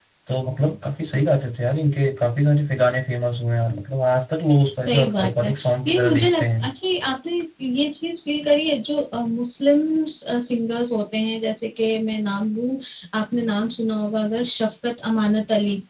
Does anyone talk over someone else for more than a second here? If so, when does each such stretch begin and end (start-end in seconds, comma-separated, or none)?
4.8-6.6